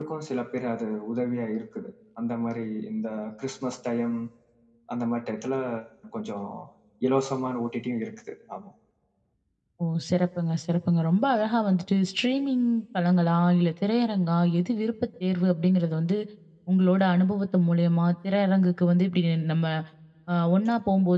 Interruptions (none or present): none